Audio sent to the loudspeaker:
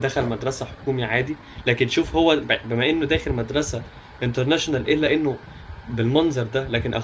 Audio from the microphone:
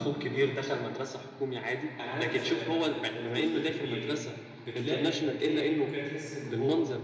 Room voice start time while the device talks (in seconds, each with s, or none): 2.0 s